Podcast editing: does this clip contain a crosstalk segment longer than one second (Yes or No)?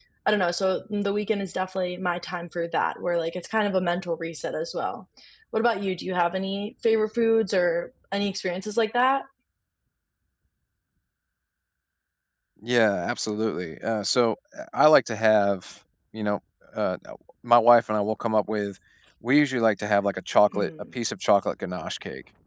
No